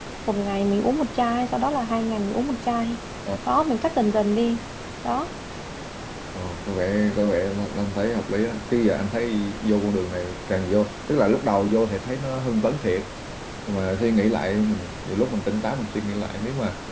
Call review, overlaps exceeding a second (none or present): none